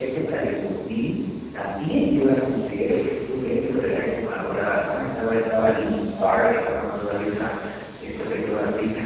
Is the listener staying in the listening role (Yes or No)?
Yes